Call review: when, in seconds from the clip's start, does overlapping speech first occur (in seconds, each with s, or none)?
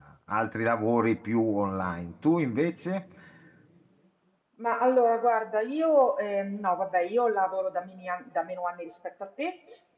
none